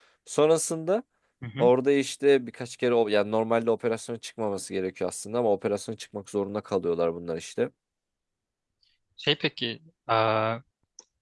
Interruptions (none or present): none